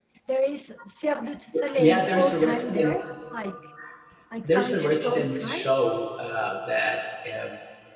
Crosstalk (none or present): present